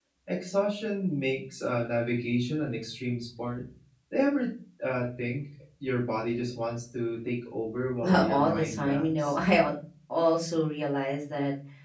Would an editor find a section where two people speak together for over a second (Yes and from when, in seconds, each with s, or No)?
Yes, from 8.0 s